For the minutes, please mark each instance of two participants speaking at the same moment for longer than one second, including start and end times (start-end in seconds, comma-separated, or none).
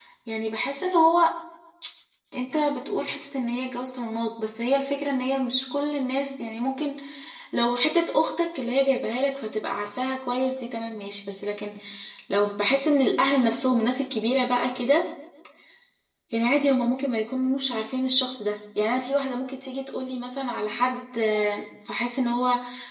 none